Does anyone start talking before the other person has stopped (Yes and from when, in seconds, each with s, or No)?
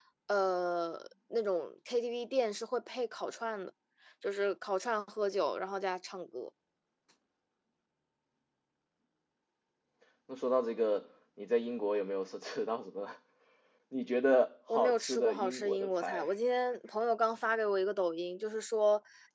Yes, from 14.7 s